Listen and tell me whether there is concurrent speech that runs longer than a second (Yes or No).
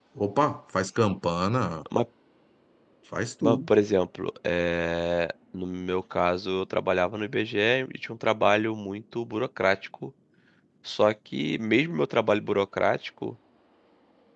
No